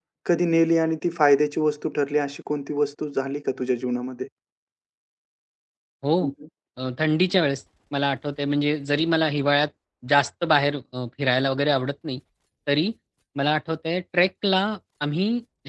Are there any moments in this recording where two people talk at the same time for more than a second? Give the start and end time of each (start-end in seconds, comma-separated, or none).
none